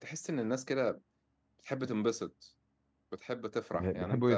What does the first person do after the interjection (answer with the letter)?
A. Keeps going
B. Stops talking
B